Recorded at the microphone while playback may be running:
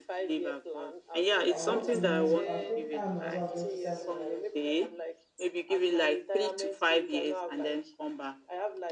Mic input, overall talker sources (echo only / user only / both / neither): both